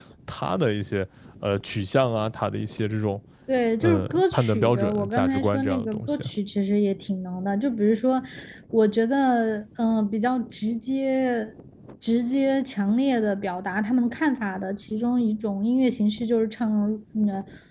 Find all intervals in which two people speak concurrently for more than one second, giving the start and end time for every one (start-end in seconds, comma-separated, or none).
3.8-6.2